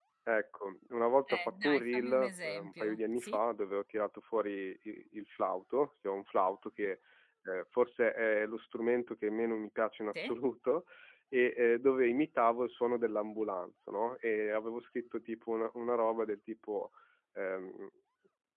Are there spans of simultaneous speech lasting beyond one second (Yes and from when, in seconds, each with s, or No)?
Yes, from 1.3 s